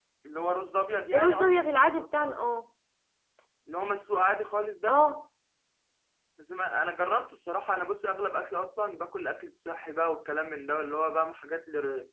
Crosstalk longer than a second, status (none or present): present